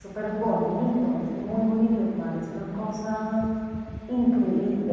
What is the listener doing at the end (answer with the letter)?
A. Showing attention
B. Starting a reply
B